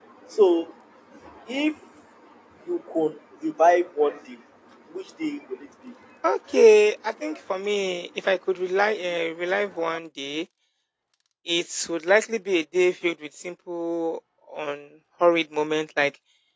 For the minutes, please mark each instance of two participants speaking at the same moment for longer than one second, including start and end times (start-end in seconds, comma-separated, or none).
none